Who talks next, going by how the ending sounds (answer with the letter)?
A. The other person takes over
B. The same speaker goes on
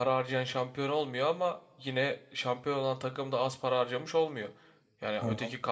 B